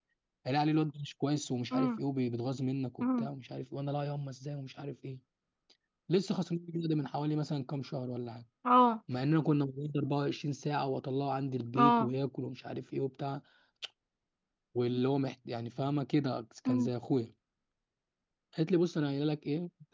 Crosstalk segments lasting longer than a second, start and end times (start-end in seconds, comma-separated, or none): none